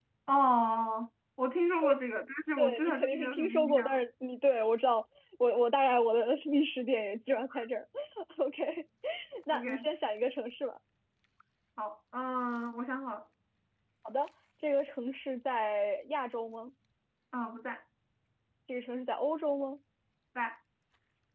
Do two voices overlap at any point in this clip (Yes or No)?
Yes